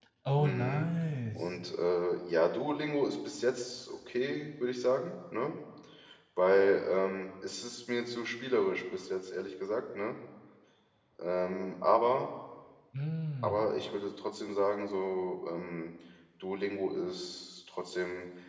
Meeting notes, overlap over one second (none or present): none